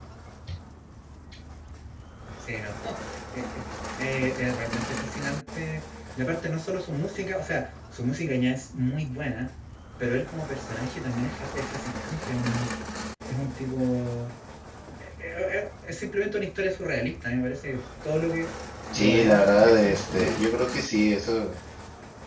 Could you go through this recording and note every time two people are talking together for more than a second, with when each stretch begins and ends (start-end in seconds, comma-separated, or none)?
18.9-20.4